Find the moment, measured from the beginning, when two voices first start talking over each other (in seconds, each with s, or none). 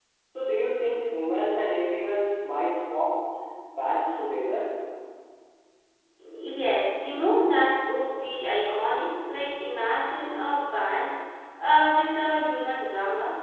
none